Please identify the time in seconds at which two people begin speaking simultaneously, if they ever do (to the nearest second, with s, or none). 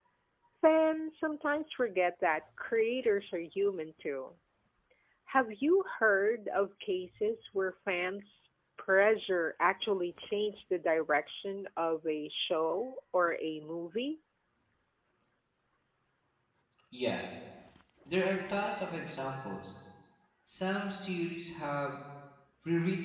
none